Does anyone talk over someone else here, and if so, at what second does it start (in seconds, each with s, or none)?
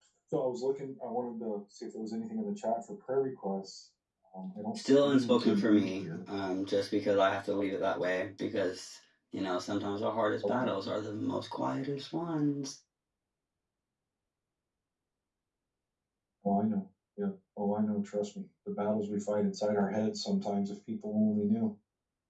4.8 s